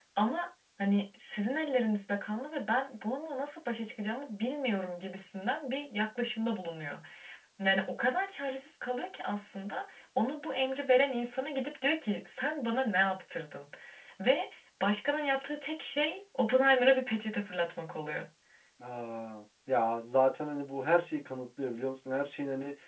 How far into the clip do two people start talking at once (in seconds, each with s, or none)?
none